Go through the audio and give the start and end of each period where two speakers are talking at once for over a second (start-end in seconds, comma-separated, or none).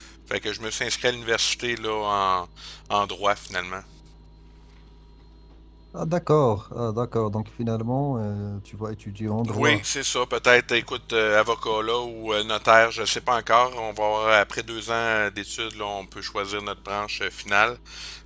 none